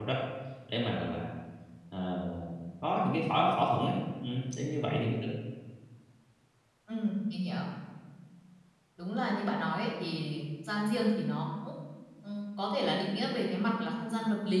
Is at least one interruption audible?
No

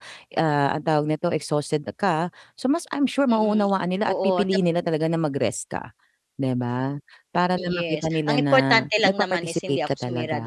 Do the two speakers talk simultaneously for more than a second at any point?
Yes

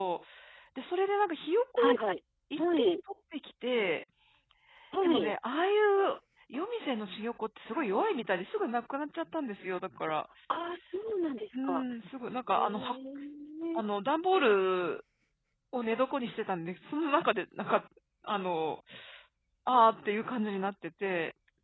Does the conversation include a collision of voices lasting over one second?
No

